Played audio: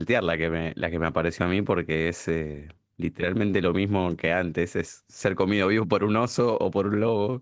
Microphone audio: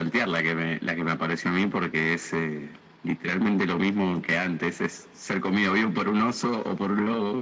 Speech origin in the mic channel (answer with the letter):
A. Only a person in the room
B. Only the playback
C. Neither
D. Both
B